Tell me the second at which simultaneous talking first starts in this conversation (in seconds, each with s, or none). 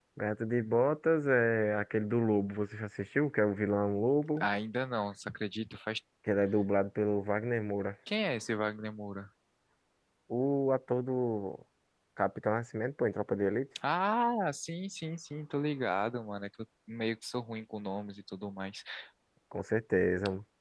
none